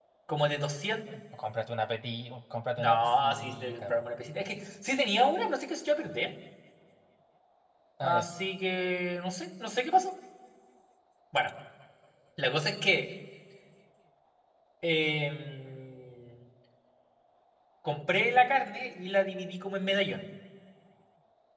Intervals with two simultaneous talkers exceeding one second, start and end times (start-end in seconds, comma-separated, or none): 2.8-4.0